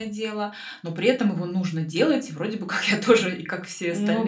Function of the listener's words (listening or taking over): taking over